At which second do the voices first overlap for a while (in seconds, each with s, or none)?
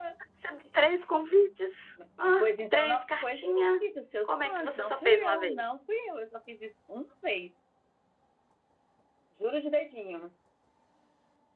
2.4 s